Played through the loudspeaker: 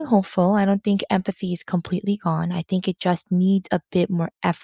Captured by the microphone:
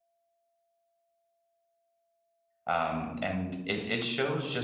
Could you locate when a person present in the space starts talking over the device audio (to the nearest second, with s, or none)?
3 s